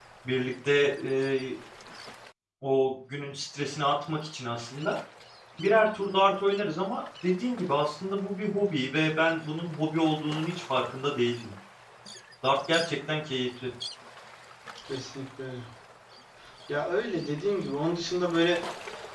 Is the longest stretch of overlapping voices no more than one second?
Yes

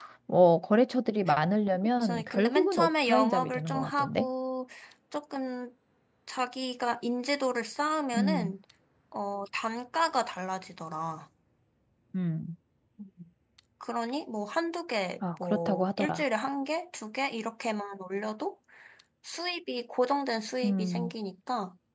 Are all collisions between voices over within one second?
No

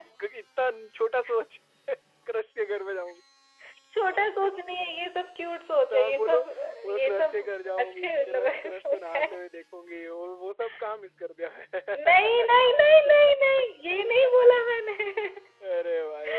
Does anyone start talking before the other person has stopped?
Yes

